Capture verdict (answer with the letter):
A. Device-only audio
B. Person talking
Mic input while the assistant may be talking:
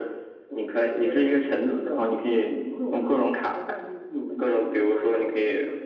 A